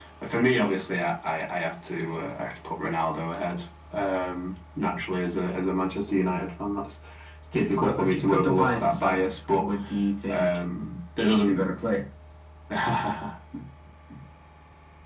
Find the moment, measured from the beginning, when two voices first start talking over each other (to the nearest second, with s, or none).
8 s